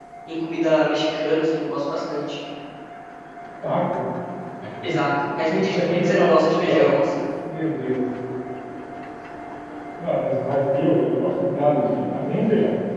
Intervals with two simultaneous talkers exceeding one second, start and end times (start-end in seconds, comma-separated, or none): 5.5-6.9